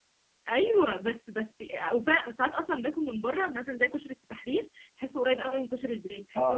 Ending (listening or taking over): taking over